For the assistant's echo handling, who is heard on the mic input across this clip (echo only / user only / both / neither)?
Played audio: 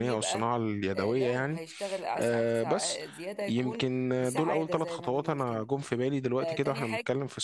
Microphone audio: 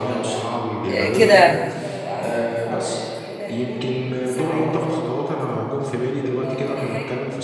both